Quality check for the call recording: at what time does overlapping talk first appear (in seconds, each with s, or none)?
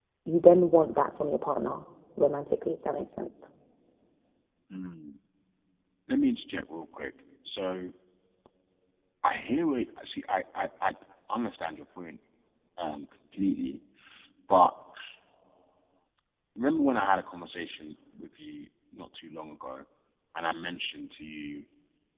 none